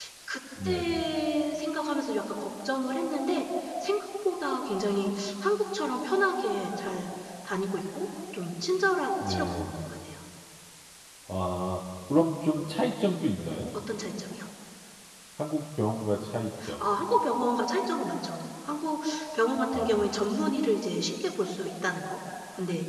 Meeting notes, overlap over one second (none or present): none